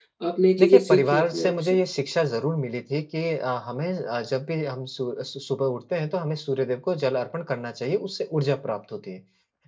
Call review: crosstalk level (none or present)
present